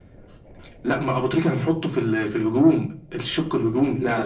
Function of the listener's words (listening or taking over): taking over